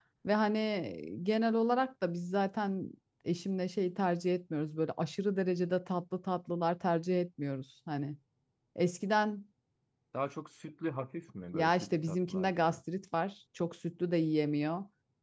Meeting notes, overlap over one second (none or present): present